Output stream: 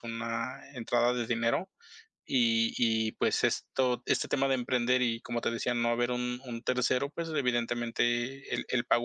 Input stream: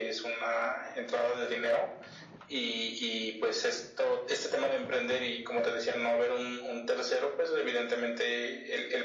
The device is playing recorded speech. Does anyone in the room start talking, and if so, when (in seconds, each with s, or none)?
none